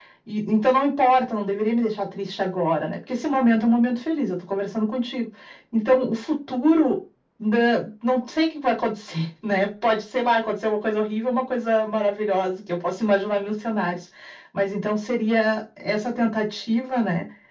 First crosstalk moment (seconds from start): none

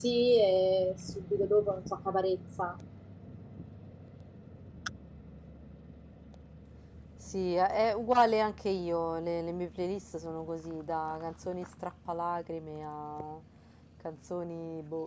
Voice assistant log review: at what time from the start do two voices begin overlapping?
none

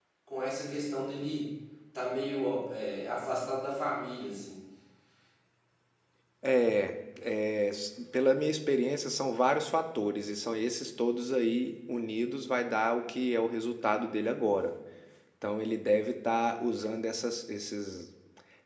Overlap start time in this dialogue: none

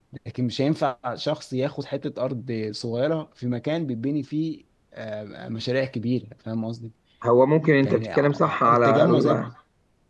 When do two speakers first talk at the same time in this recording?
7.8 s

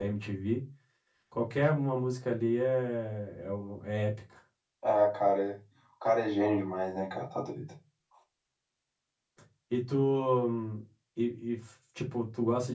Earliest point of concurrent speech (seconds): none

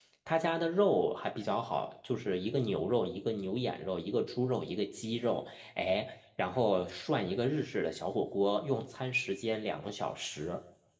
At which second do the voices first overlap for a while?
none

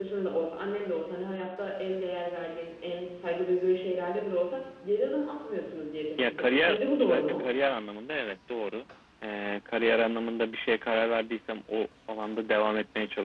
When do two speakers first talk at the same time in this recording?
6.2 s

